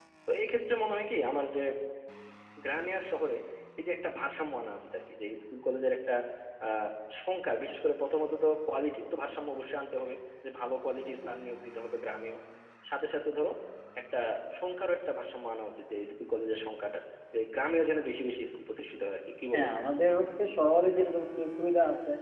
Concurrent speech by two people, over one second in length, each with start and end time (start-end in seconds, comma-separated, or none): none